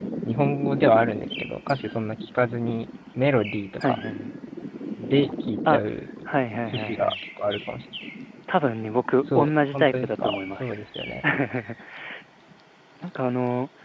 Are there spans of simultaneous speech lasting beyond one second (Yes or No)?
Yes